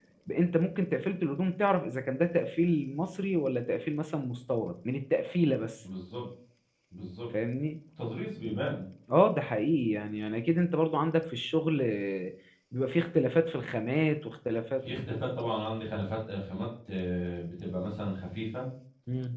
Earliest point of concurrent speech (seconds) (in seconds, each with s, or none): none